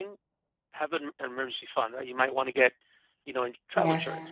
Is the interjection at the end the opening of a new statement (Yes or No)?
No